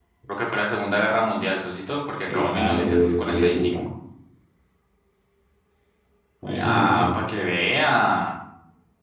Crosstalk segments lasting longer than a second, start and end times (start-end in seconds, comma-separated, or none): 2.3-3.8